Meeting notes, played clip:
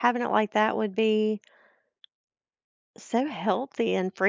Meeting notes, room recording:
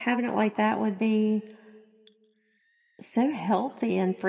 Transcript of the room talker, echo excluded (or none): none